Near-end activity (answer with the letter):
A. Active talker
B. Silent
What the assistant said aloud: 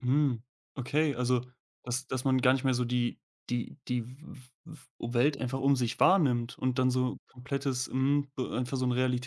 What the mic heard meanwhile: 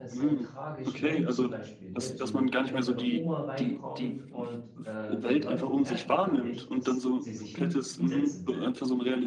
A